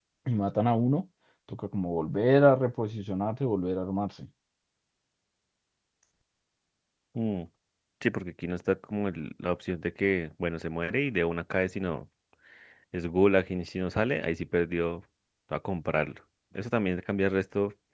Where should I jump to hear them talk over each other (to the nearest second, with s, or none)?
none